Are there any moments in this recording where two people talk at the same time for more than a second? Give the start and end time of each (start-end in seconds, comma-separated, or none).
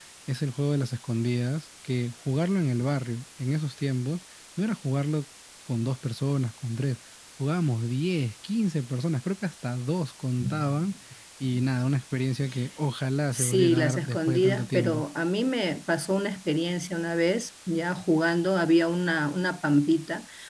13.3-15.0